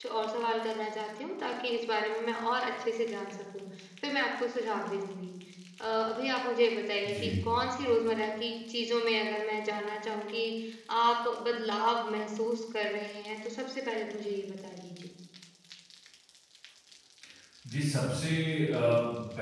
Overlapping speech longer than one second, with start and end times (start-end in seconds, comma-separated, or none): none